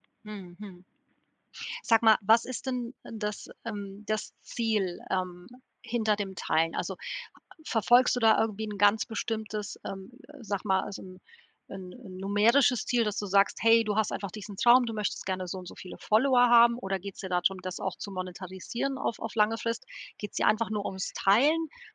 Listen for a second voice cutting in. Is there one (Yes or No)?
No